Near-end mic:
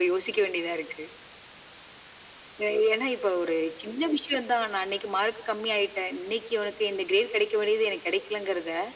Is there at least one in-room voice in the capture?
No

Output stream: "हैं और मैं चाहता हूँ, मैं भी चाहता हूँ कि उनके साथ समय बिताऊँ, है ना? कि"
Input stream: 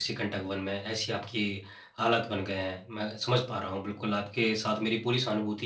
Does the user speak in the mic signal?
Yes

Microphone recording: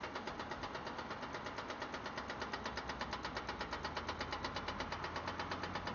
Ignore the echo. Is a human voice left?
No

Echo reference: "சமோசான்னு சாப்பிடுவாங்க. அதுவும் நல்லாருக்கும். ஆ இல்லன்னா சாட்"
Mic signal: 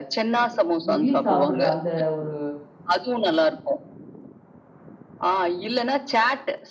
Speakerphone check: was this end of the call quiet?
No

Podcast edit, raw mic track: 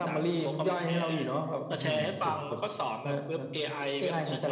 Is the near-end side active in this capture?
No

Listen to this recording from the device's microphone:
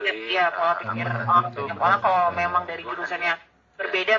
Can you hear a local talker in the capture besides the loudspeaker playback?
Yes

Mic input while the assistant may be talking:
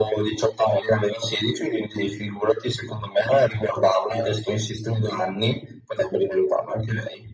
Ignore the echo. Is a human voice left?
No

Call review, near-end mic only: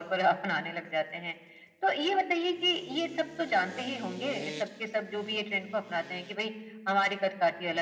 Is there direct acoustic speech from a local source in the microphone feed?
No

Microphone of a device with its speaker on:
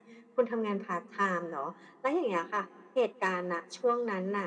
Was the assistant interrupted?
No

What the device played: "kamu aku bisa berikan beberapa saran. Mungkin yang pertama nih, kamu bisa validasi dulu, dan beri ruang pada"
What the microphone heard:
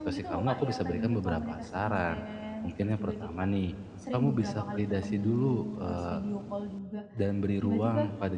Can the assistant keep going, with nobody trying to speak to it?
No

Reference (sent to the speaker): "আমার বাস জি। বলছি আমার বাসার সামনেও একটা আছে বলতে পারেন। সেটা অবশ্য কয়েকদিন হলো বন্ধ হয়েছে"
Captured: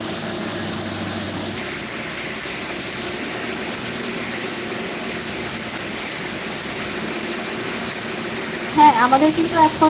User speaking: Yes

